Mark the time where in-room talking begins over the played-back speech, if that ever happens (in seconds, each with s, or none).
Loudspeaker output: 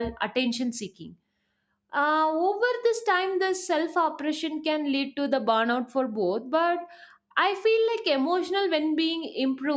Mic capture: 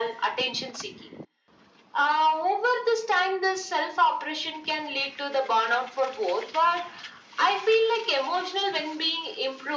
none